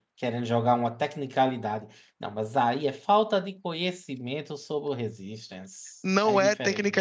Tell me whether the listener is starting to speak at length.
Yes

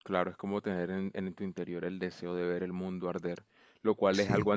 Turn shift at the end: No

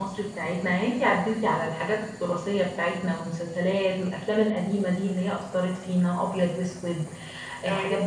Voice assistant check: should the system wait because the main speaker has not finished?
Yes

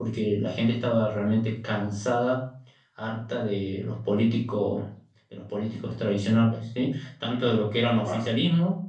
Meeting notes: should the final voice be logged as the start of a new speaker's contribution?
No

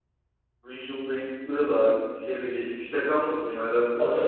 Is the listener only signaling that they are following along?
No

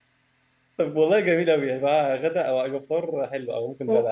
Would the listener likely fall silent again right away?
No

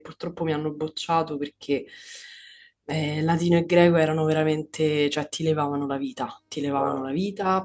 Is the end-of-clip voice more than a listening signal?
No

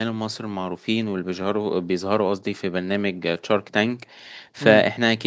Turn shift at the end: No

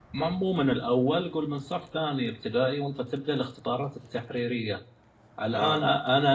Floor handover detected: No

